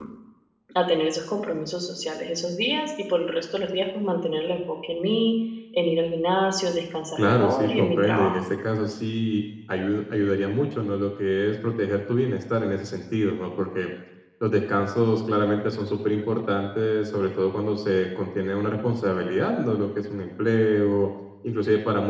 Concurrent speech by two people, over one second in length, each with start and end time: 7.2-8.4

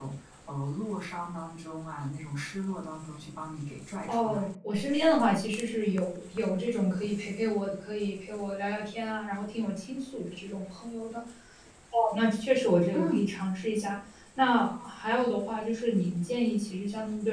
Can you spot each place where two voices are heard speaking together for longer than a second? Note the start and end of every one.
none

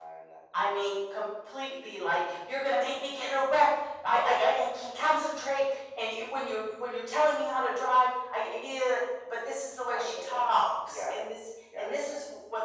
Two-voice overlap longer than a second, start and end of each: 9.9-11.2

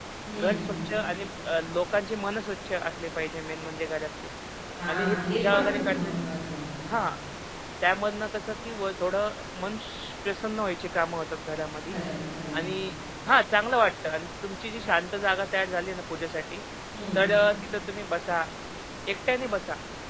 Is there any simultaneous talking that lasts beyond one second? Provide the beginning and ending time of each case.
4.9-6.2

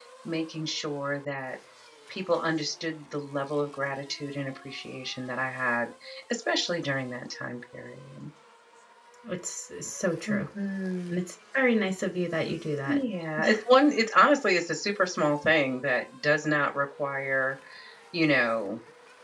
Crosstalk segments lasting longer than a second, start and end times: none

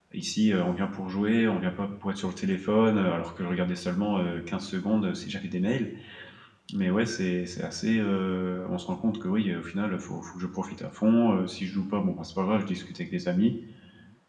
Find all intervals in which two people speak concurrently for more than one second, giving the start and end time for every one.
none

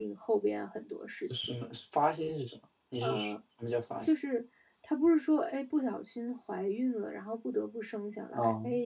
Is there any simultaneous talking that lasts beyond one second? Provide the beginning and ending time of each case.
none

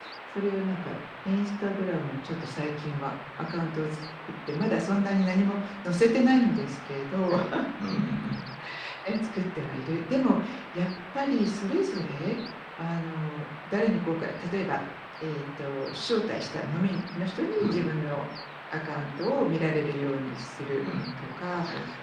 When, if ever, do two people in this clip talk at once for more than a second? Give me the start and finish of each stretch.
none

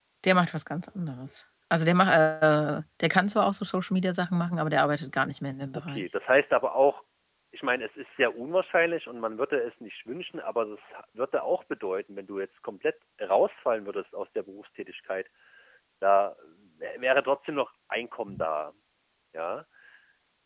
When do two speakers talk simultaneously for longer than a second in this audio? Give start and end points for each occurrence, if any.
none

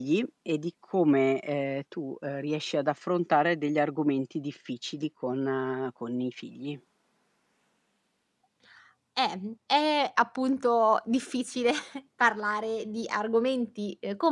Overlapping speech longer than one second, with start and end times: none

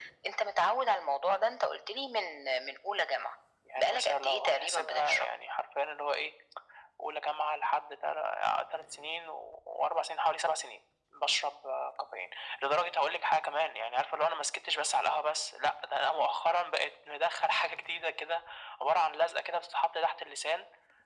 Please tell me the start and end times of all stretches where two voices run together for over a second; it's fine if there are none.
3.8-5.3

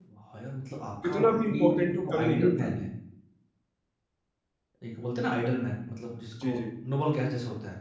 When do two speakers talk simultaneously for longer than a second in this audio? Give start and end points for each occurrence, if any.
1.0-2.7

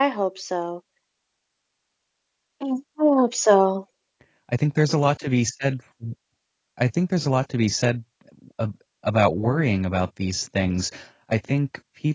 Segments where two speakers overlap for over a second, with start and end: none

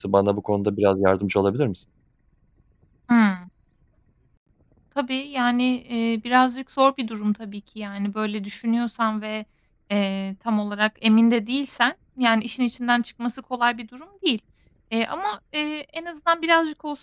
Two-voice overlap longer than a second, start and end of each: none

